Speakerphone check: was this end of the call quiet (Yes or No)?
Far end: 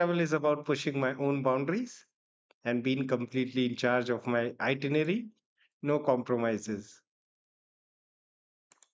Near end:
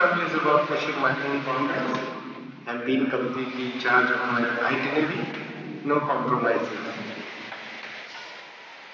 Yes